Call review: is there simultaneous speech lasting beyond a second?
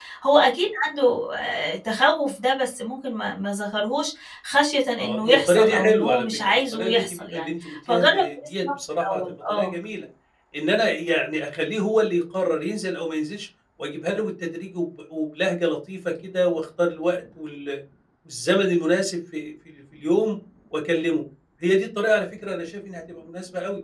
Yes, from 5.0 s

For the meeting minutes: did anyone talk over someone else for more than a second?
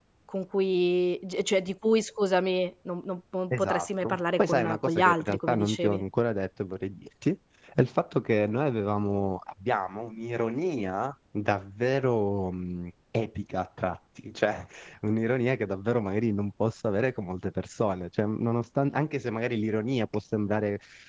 Yes, from 3.5 s

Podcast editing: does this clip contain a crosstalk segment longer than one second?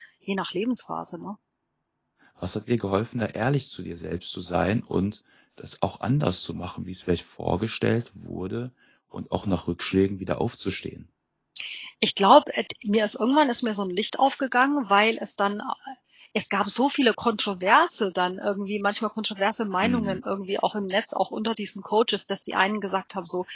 No

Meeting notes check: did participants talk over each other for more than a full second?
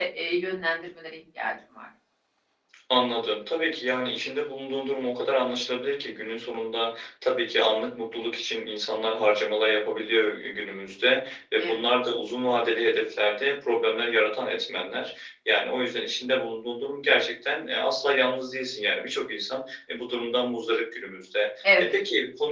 No

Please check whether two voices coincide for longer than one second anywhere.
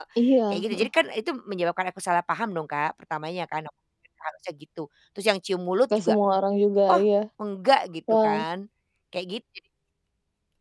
No

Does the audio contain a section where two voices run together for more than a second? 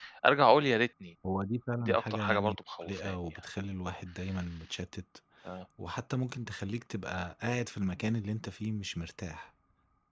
Yes, from 1.8 s

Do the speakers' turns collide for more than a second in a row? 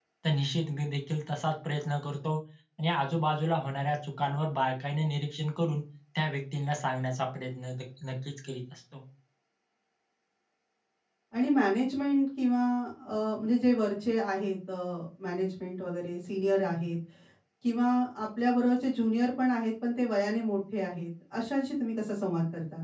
No

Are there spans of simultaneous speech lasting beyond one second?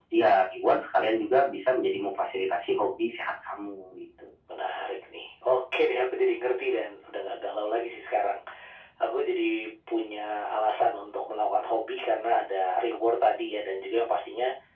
No

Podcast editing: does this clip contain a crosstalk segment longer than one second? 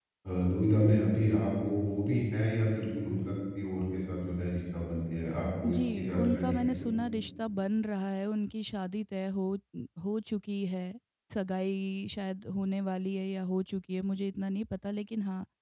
Yes, from 5.6 s

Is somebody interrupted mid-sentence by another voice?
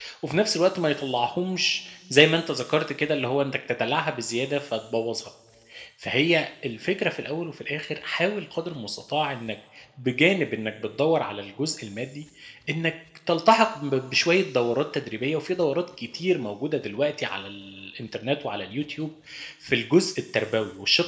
No

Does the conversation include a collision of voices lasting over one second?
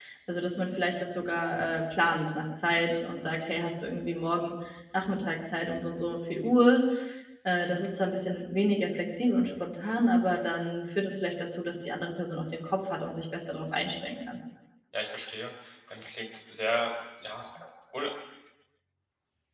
No

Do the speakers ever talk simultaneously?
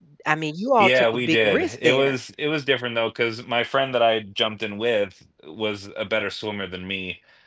Yes, from 0.8 s

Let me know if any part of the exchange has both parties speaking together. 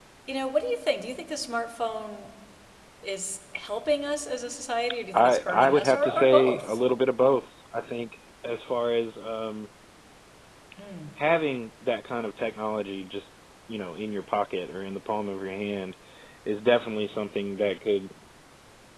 Yes, from 5.1 s

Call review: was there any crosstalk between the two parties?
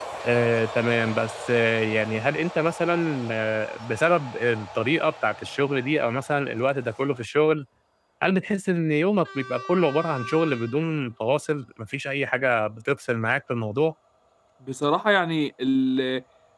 No

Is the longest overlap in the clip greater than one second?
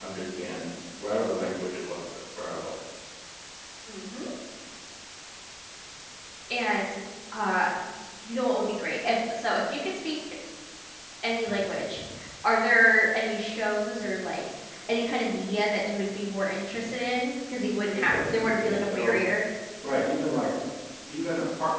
Yes, from 17.9 s

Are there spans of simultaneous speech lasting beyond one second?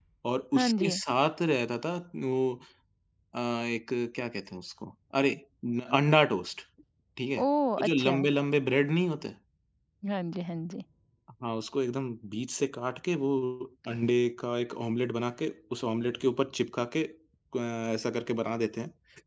No

